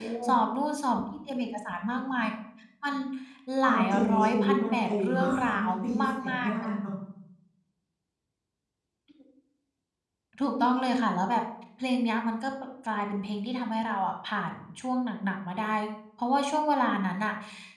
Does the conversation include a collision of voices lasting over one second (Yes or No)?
Yes